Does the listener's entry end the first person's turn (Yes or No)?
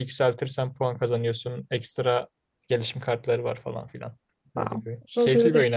Yes